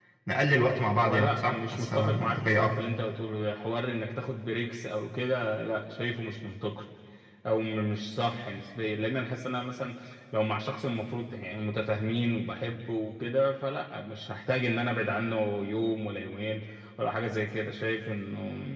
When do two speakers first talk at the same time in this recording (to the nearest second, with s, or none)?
1 s